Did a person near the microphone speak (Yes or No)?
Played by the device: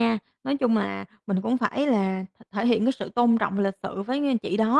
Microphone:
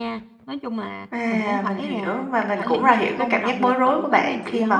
Yes